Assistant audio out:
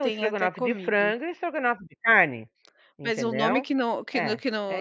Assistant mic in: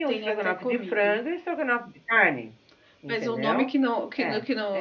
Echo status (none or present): present